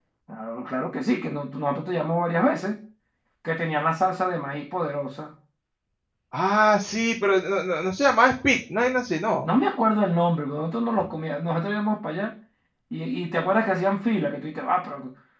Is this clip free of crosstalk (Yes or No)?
Yes